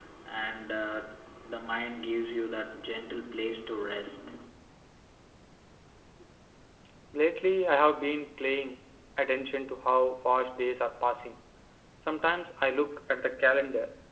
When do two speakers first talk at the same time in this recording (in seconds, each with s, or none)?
none